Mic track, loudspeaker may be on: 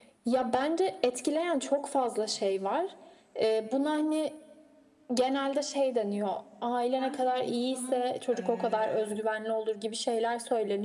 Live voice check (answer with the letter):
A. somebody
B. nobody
A